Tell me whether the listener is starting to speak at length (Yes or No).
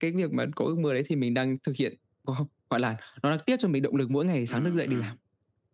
Yes